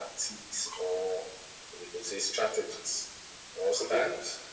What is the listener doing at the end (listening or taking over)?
listening